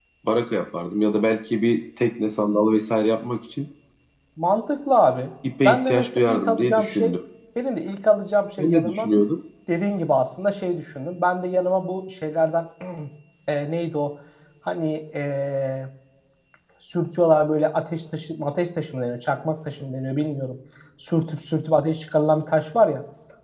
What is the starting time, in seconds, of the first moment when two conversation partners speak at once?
5.7 s

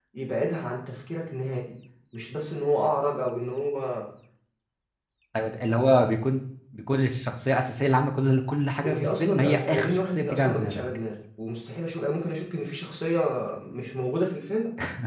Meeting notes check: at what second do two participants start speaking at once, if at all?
8.8 s

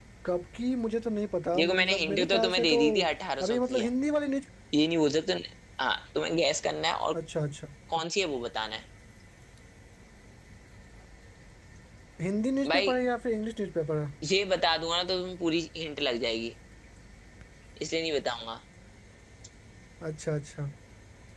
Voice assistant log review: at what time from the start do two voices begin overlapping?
1.6 s

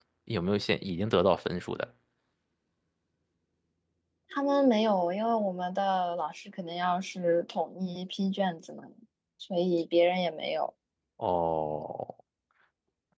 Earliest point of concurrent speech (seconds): none

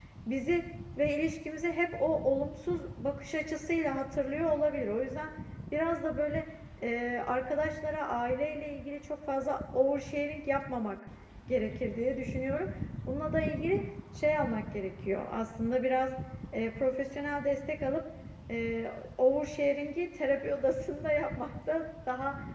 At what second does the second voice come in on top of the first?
none

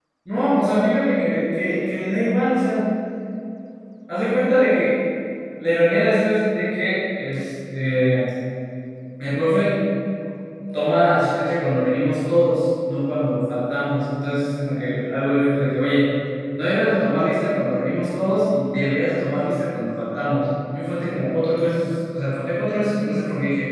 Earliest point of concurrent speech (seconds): none

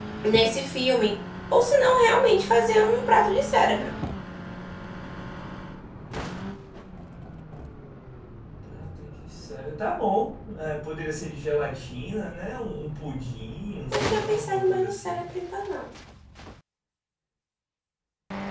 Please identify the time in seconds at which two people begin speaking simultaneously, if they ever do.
13.9 s

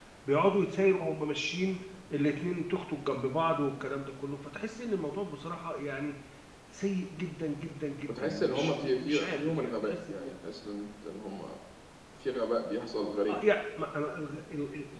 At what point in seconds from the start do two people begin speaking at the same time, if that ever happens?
8.1 s

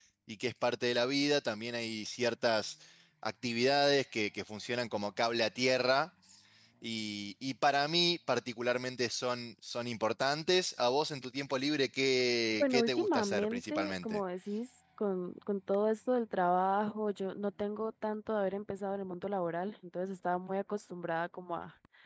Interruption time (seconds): 12.6 s

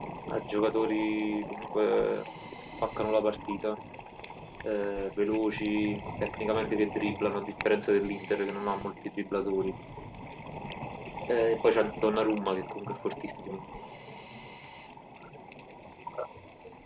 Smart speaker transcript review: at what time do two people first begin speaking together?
none

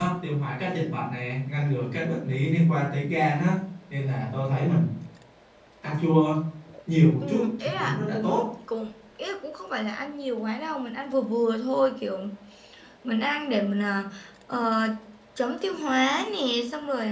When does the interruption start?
7.2 s

